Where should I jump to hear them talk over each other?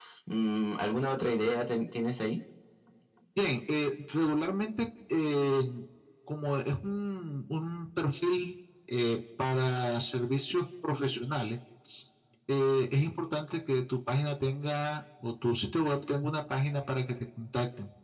none

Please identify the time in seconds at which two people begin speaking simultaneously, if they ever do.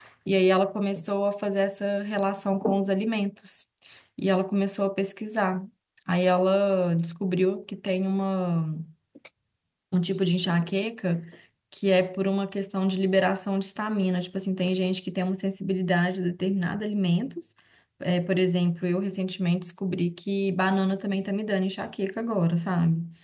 none

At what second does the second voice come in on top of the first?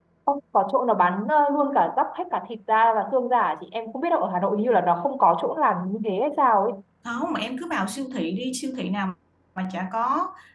none

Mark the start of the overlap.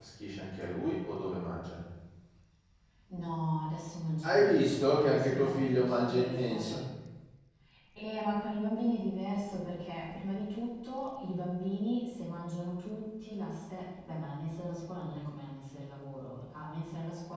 4.2 s

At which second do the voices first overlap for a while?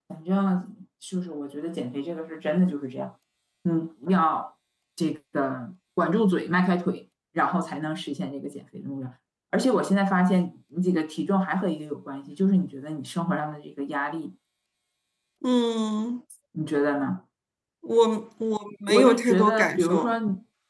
18.9 s

